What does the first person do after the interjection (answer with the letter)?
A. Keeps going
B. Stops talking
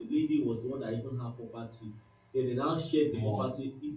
A